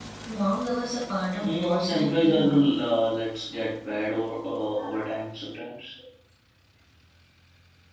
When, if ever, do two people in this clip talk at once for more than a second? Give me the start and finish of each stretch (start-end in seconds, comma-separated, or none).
1.4-2.6